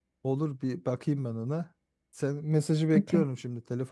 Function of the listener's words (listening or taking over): listening